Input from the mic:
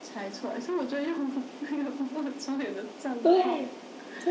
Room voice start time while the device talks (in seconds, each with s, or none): 3.2 s